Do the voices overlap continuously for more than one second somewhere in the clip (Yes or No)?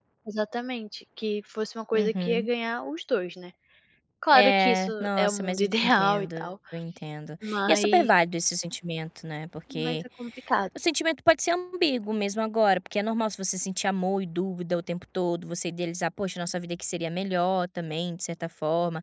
Yes